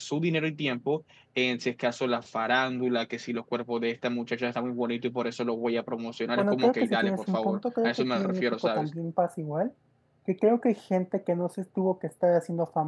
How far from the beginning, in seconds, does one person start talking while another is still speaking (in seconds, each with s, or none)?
6.4 s